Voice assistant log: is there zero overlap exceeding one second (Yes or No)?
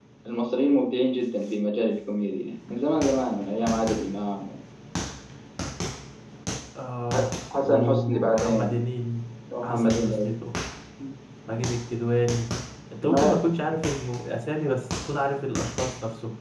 No